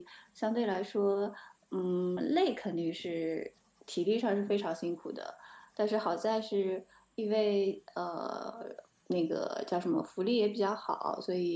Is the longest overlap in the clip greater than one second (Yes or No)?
No